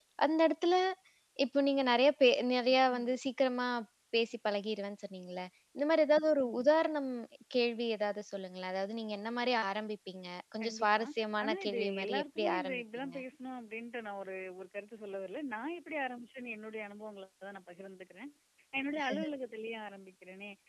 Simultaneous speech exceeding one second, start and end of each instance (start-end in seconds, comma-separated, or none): 11.4-13.2